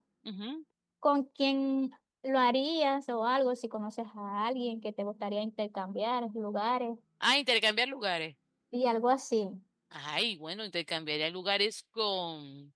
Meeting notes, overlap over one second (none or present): none